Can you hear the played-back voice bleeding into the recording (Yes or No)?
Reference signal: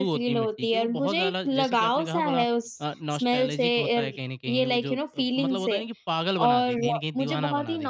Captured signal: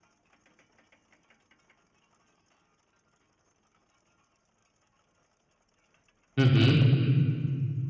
No